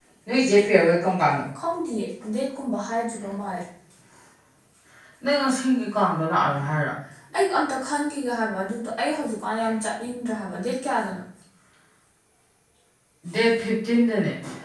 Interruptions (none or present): none